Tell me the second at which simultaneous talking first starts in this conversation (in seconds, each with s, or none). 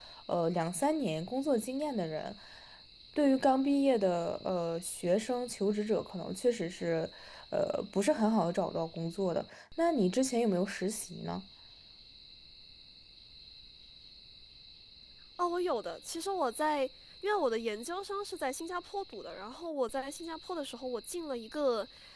none